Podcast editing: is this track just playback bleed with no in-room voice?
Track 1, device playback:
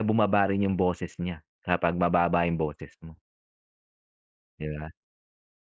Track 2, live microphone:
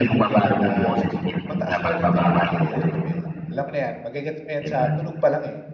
No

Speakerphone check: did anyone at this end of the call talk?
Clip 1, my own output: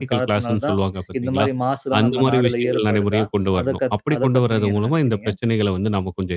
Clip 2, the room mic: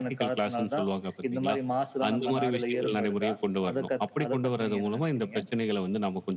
Yes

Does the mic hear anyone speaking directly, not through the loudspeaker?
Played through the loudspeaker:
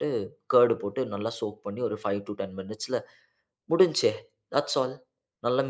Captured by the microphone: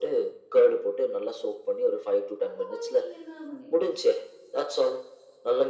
Yes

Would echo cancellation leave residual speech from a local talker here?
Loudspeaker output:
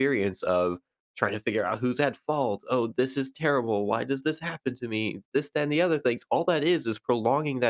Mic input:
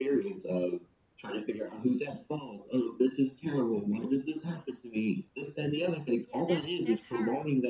Yes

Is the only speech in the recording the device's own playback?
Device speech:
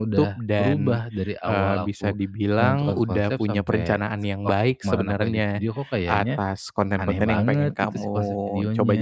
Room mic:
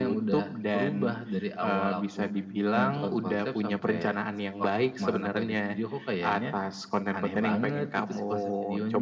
Yes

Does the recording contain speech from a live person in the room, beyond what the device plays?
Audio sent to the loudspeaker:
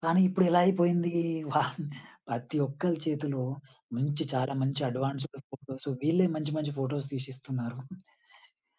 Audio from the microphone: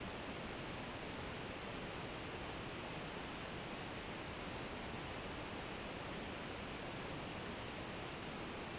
No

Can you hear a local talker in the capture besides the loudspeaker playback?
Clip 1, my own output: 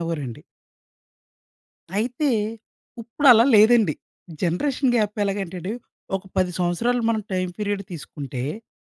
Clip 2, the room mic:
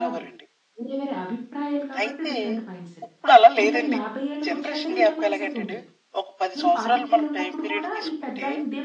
Yes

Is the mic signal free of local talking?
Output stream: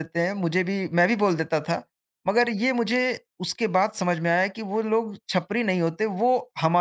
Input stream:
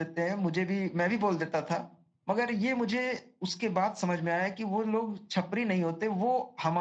Yes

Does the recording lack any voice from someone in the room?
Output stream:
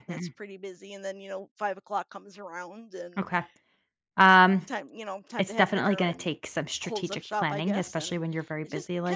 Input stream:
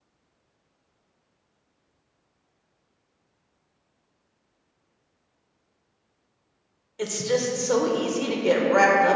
No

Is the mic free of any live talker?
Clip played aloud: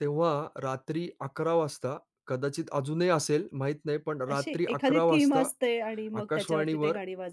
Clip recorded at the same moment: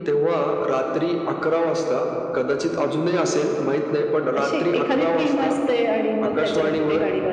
Yes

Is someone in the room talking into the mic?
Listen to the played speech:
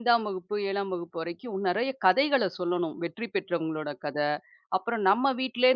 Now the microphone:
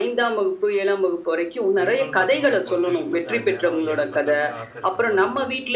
Yes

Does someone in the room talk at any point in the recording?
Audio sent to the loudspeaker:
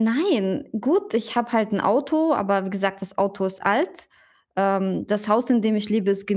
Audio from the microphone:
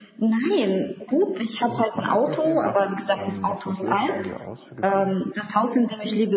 Yes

